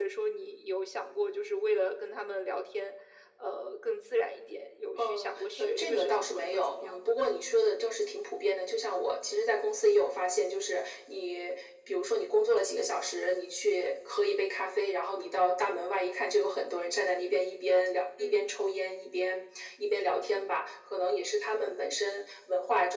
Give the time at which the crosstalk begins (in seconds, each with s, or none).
5.0 s